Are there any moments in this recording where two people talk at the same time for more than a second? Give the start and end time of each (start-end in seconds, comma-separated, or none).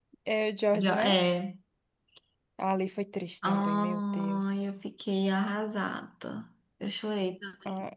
3.5-4.7